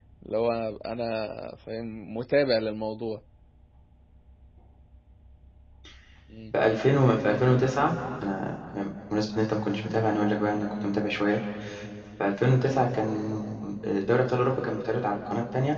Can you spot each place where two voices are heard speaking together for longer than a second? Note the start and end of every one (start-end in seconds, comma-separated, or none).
none